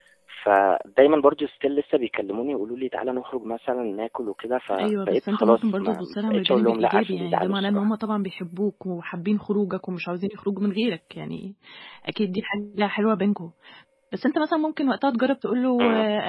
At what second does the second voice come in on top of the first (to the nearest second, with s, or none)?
5 s